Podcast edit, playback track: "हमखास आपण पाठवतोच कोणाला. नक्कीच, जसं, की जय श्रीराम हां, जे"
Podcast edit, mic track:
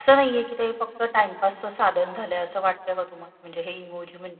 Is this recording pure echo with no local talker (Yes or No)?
No